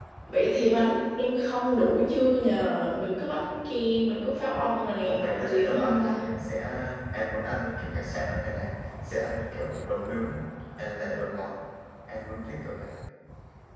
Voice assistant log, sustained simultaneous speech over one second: present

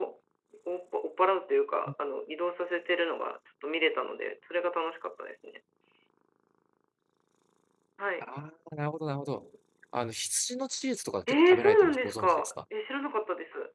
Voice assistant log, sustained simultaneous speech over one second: present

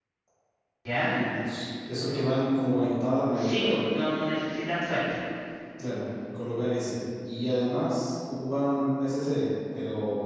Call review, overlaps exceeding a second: none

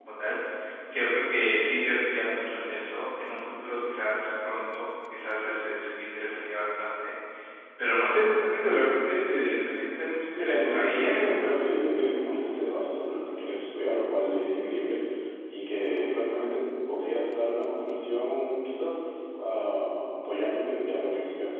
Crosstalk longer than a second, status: present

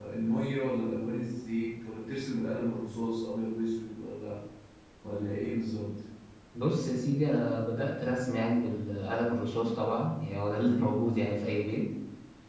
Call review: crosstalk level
none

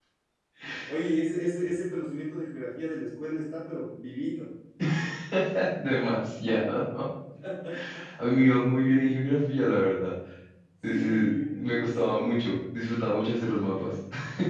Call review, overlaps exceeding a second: present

